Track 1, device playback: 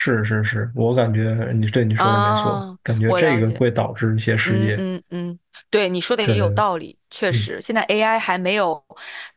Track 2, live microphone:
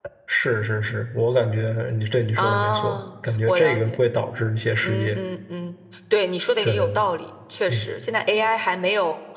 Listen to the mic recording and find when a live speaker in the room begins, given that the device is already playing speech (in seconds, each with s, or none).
none